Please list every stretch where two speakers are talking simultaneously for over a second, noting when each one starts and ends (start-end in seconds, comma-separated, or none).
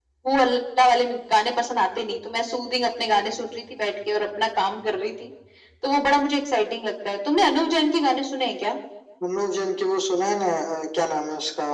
none